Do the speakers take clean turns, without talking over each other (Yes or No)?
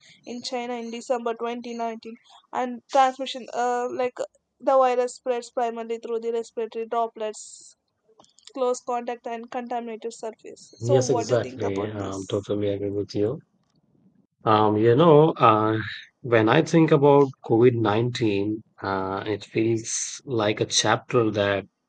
No